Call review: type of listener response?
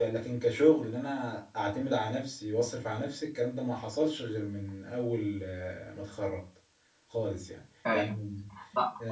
taking over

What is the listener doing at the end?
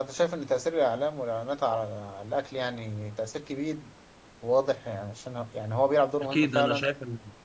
taking over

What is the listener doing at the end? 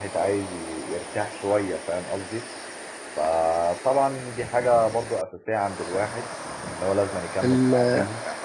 taking over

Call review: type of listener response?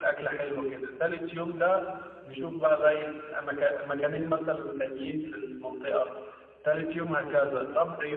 listening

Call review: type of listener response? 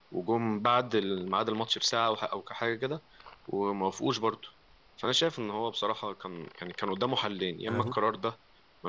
listening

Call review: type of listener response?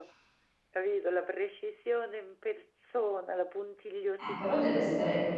taking over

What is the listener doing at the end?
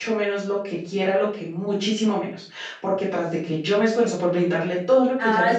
taking over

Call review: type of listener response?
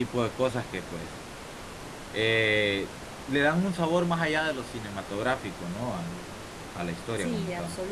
taking over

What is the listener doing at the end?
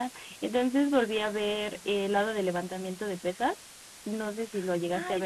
taking over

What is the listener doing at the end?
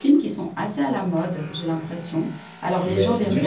taking over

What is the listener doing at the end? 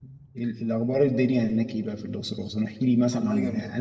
listening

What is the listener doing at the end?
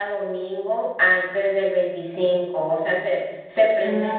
listening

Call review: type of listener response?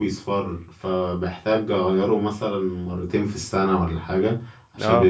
listening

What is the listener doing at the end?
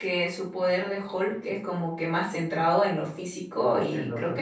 taking over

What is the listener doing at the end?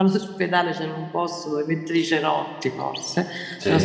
listening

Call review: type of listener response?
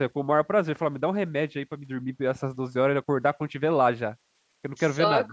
taking over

